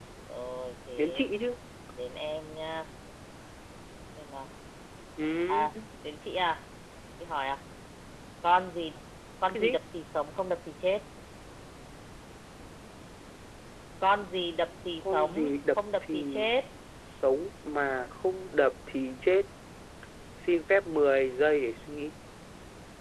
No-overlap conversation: No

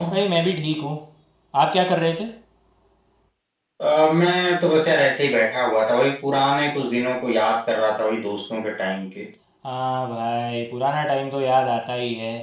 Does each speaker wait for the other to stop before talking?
Yes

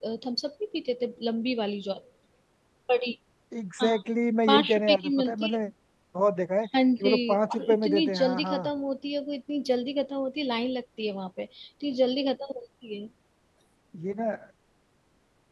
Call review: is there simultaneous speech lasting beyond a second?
Yes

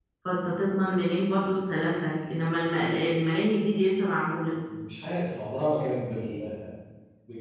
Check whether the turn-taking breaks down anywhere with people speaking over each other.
No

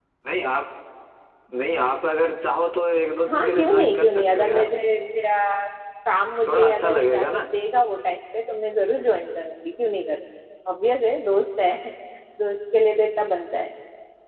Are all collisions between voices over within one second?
No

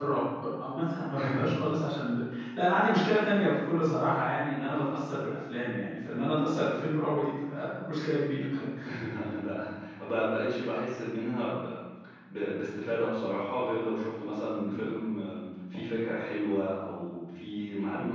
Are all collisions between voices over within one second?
Yes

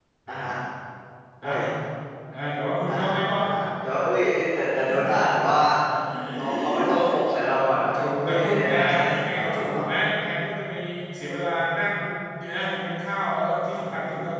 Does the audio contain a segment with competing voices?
Yes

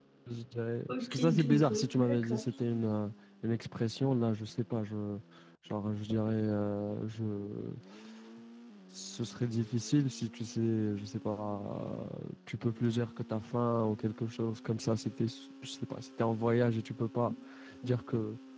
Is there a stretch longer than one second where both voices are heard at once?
Yes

